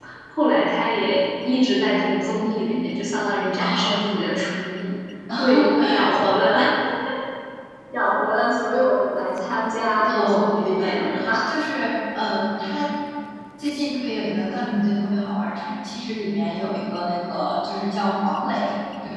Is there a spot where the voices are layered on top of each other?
Yes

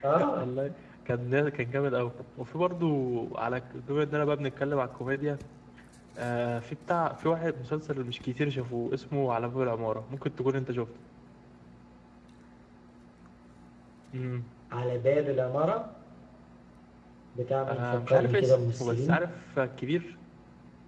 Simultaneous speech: Yes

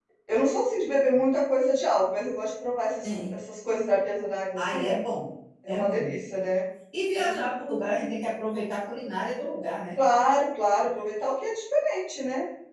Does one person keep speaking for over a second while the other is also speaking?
No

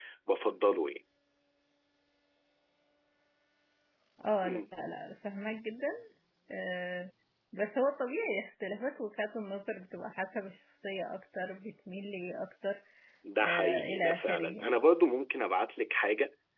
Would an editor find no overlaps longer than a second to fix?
No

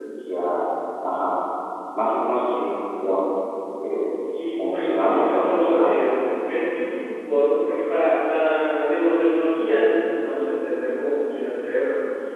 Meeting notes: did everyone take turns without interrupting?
No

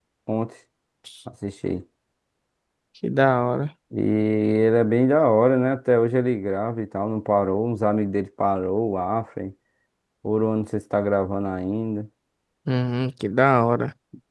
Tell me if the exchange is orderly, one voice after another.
Yes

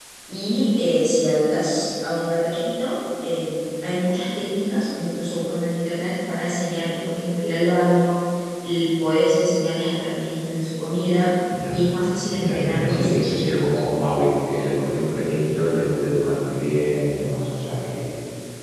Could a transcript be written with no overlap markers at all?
No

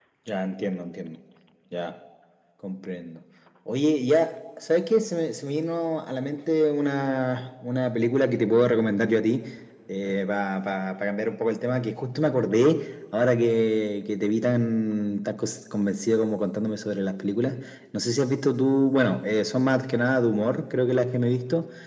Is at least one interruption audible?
No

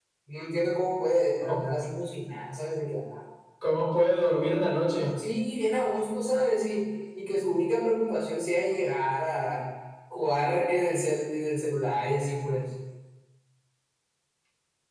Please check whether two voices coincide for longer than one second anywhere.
No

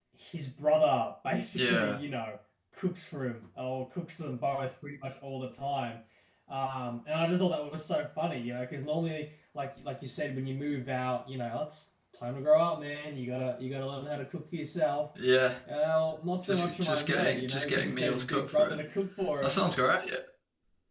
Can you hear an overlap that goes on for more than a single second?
Yes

